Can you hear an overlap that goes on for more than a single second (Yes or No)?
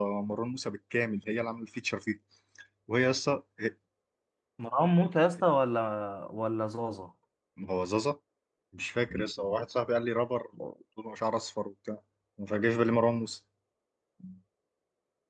No